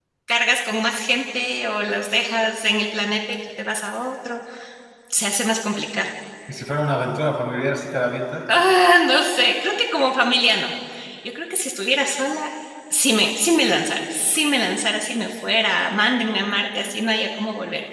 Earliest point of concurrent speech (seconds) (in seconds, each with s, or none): none